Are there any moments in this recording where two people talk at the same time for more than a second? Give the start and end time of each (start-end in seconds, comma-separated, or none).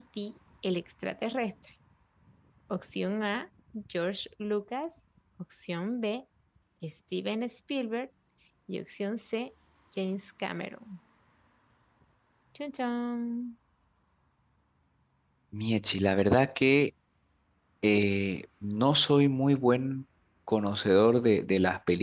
none